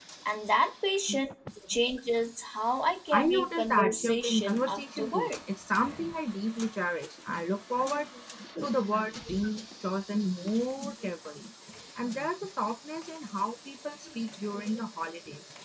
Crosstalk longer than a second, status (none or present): present